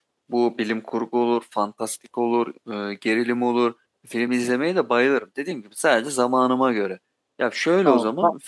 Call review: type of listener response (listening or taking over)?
listening